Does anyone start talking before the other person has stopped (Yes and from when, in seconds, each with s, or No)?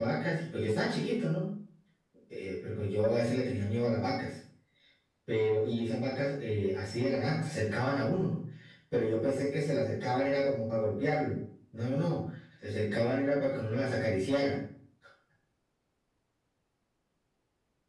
No